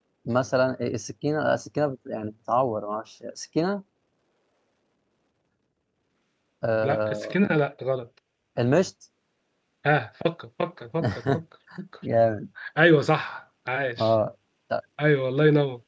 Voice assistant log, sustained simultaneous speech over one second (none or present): none